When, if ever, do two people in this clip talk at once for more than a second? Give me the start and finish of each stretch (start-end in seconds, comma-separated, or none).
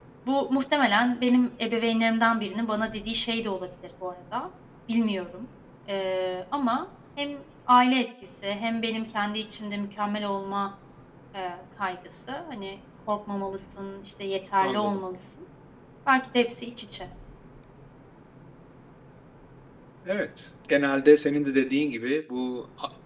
none